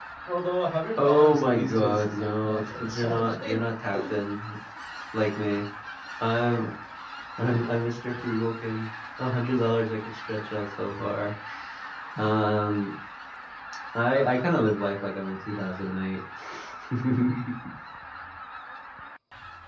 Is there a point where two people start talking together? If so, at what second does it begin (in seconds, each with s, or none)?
1.0 s